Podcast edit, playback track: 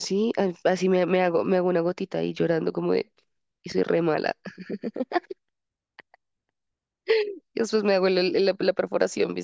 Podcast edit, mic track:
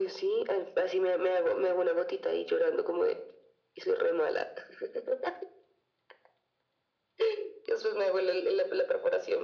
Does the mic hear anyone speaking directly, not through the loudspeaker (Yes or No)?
No